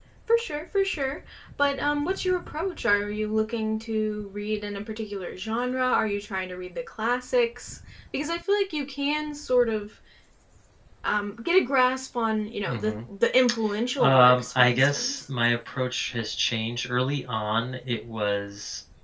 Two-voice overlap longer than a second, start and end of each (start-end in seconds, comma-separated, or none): 14.0-15.2